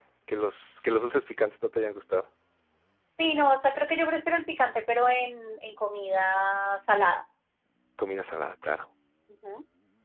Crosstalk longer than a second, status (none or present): none